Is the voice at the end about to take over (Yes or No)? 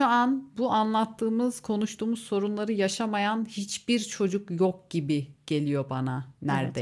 Yes